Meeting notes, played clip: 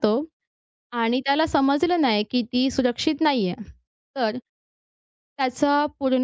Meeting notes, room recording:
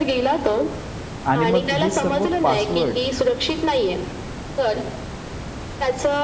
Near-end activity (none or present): present